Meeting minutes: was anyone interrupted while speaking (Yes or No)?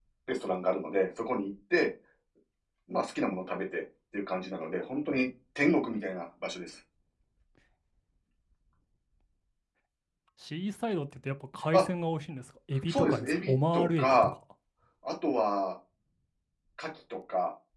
Yes